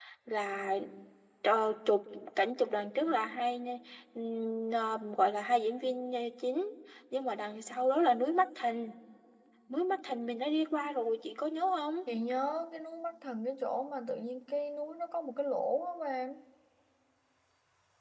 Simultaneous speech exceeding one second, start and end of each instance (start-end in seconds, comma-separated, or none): none